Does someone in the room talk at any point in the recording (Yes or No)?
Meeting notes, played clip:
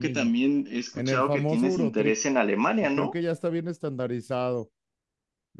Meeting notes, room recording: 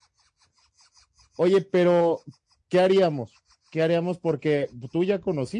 Yes